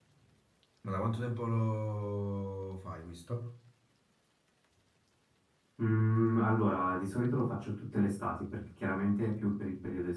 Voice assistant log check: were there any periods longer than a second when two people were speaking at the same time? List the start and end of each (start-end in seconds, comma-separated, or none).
none